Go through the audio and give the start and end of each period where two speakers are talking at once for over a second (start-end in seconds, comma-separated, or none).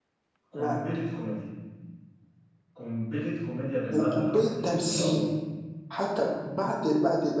3.9-5.3